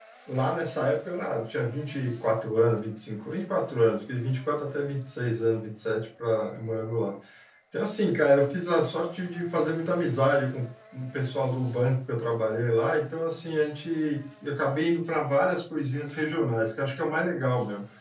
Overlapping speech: No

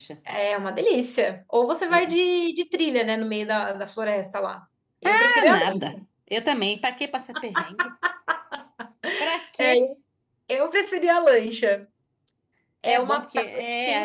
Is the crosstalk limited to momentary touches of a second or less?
No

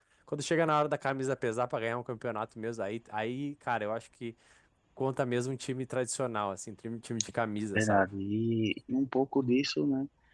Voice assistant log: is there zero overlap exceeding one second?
Yes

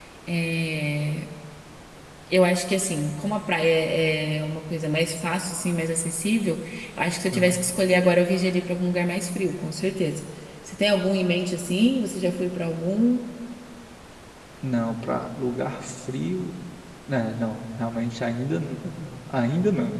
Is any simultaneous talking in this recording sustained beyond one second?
No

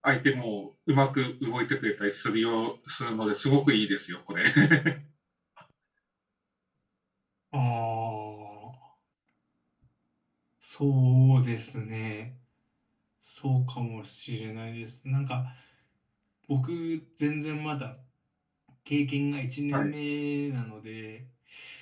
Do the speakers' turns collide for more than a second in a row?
No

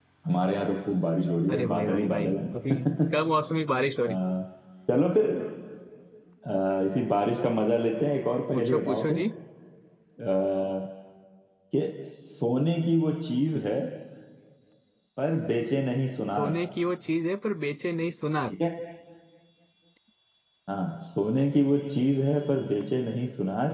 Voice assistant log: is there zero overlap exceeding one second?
No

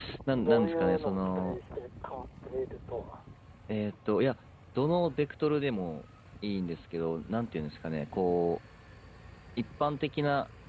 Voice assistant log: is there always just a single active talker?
No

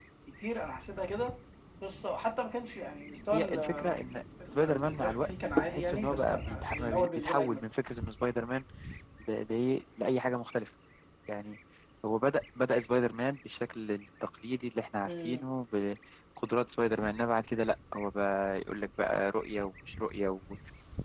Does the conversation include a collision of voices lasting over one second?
Yes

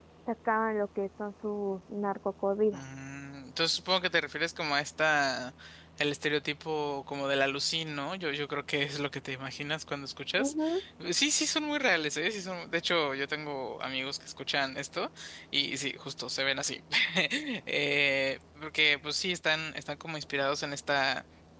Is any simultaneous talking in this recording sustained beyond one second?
No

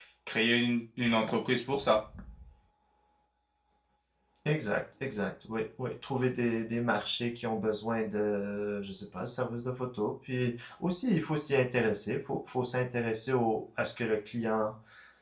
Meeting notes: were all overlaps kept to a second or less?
Yes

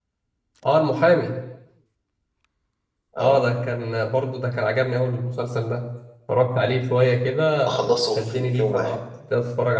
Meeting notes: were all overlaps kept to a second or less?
No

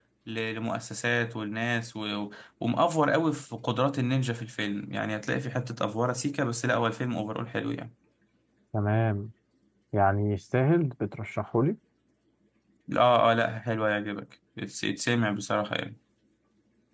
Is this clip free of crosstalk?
Yes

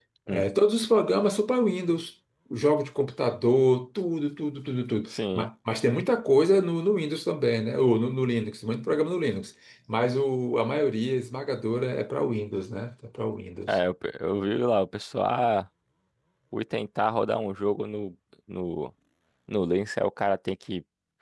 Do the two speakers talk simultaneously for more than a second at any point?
No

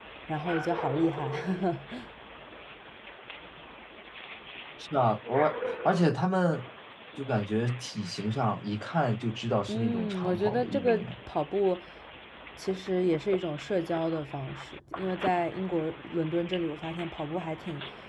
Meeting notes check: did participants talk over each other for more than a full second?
Yes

